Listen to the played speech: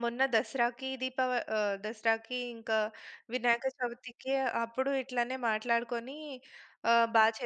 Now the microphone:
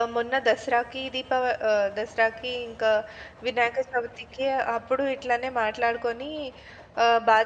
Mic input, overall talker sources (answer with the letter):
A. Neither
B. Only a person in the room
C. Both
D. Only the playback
D